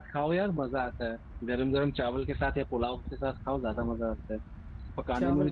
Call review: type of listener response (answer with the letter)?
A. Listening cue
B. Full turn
A